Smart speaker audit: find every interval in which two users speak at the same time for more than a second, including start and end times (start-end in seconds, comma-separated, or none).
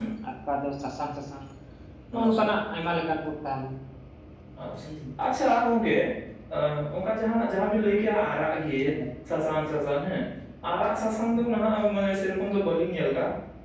none